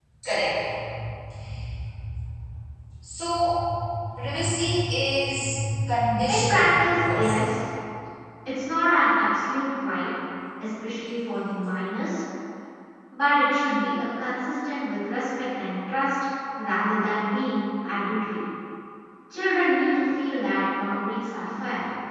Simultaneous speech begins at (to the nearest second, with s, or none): 6 s